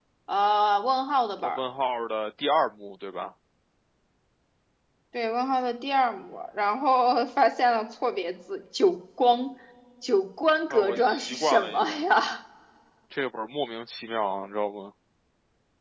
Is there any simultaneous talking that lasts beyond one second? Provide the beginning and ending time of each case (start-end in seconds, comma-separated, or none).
10.7-12.0